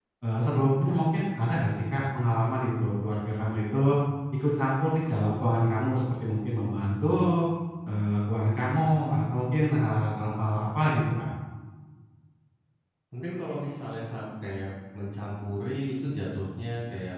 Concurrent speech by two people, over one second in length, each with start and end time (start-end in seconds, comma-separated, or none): none